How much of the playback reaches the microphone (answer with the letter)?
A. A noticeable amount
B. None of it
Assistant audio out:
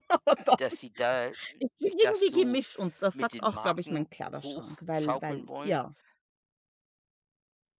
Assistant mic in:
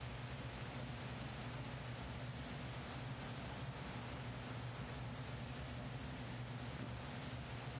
B